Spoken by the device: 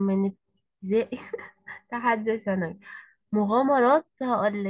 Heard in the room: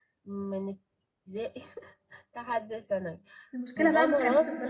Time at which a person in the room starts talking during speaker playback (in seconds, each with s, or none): 3.5 s